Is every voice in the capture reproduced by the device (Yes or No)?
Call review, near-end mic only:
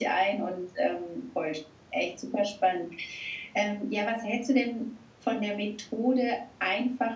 Yes